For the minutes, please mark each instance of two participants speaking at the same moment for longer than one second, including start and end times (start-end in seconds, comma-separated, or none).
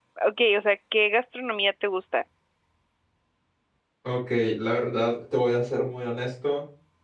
none